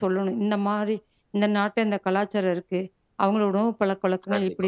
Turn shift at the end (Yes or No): No